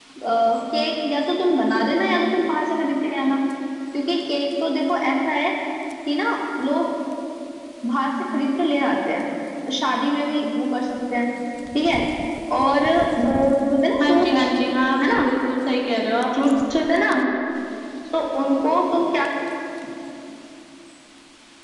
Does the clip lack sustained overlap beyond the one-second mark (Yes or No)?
Yes